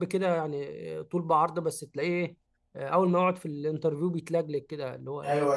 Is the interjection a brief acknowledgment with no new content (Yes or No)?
No